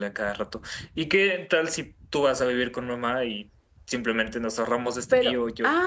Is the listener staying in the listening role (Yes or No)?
No